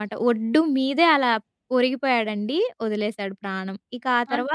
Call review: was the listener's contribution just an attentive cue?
Yes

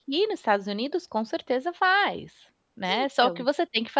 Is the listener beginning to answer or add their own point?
No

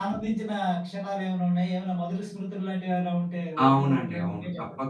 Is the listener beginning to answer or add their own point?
Yes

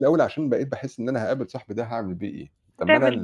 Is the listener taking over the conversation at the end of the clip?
No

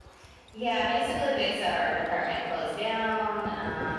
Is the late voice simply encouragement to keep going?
Yes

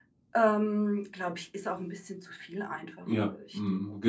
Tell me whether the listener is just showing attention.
No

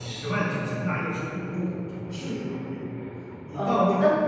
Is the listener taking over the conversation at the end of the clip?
Yes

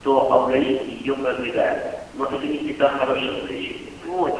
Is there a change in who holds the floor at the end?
Yes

